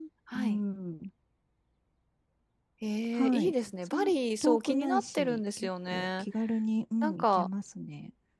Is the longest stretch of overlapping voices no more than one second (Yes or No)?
No